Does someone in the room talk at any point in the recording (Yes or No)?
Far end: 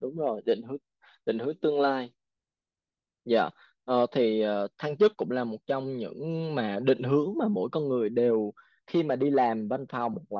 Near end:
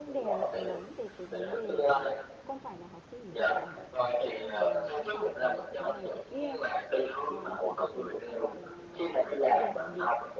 Yes